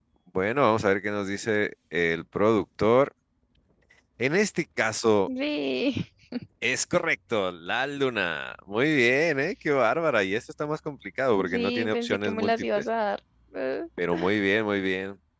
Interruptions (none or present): present